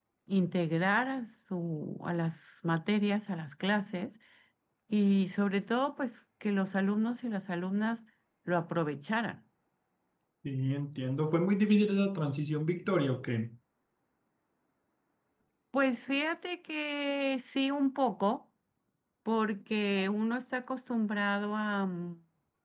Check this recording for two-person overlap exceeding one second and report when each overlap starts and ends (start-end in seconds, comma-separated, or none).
none